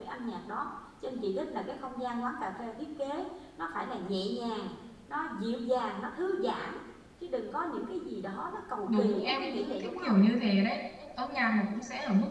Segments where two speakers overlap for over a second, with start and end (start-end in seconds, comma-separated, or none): 8.9-10.2